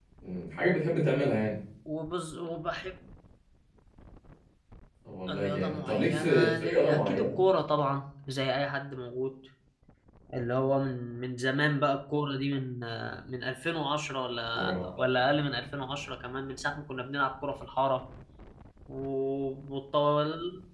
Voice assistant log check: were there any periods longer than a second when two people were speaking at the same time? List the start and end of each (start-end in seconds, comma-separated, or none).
5.3-7.4